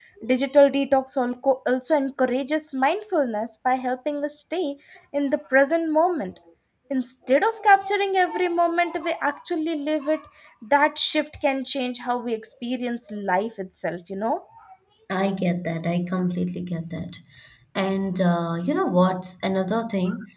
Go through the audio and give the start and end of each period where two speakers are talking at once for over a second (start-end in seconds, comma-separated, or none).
none